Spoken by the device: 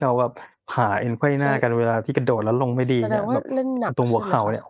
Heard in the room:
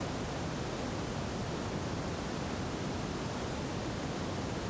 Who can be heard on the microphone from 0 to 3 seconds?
neither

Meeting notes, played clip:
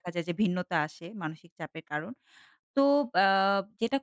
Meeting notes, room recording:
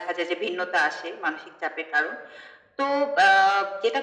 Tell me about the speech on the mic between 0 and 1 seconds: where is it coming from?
echo only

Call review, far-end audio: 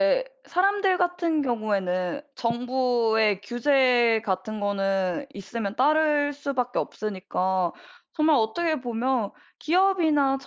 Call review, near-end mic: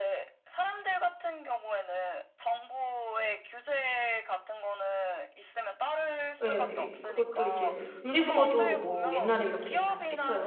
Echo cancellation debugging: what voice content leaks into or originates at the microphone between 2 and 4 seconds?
echo only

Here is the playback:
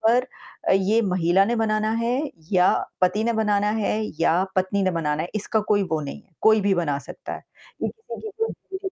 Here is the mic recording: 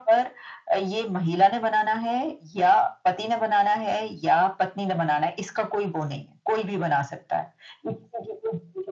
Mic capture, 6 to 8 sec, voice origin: echo only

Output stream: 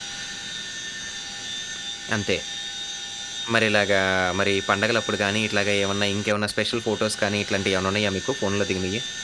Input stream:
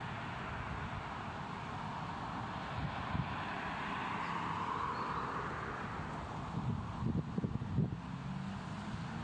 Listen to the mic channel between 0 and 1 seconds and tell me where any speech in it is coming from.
neither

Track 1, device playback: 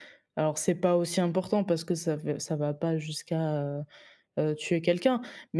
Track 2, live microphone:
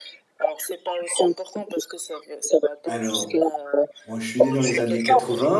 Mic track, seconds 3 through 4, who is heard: both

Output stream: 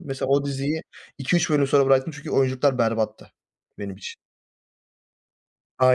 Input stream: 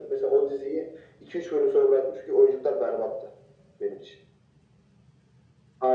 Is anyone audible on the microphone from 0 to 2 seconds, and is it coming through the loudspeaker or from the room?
echo only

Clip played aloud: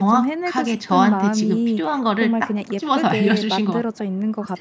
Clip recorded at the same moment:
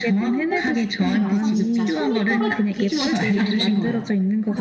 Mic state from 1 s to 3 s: both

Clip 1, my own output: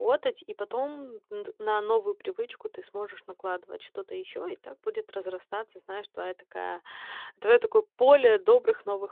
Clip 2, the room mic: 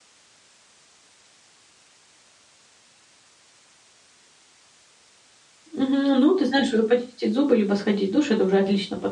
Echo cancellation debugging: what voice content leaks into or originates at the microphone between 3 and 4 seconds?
neither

